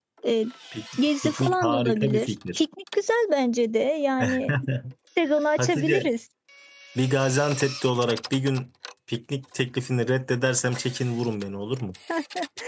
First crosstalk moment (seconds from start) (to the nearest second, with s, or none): 1 s